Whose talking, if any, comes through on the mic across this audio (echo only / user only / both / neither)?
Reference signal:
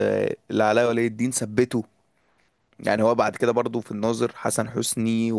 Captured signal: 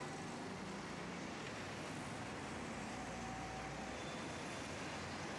neither